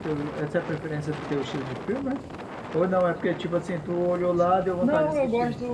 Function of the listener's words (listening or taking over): taking over